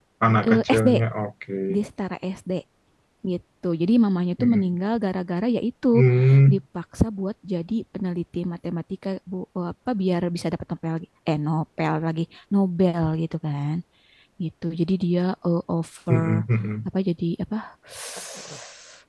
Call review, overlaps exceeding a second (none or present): none